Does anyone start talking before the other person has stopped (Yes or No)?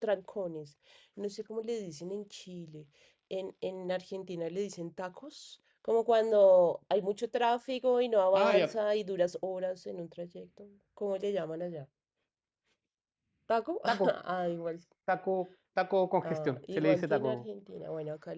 Yes